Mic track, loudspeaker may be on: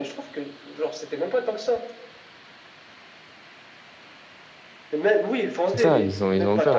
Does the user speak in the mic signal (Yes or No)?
Yes